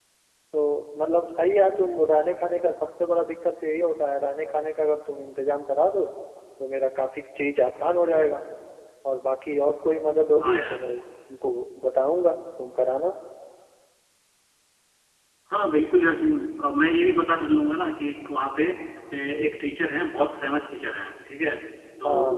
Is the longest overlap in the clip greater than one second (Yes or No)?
No